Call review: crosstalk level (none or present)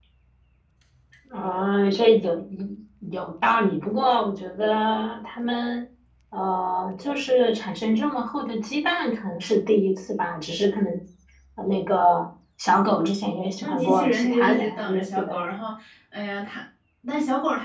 present